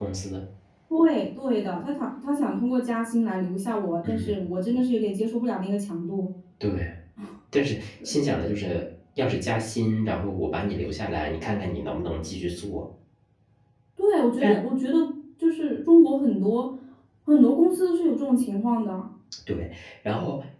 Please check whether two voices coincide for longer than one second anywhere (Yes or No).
No